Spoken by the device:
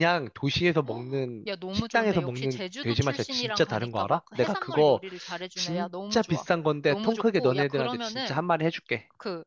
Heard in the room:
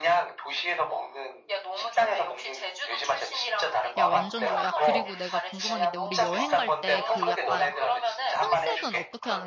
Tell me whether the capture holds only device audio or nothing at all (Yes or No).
No